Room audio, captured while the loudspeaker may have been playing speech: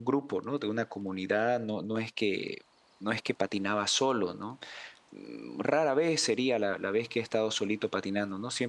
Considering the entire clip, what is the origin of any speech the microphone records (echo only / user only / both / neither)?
user only